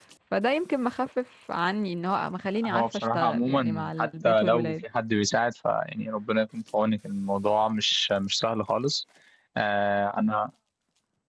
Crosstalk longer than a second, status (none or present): present